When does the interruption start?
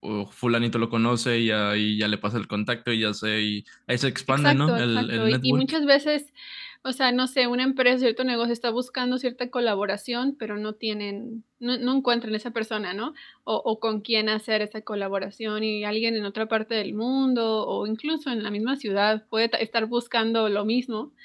4.3 s

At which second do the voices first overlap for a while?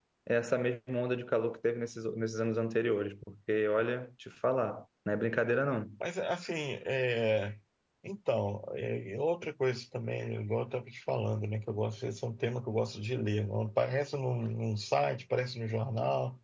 none

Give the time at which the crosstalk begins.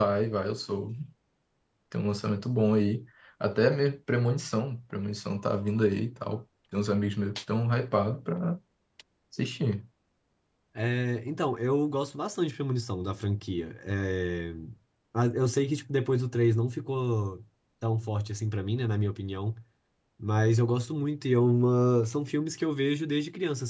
none

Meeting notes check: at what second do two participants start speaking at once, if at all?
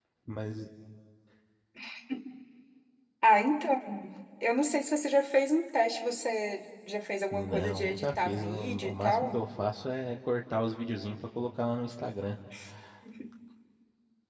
7.3 s

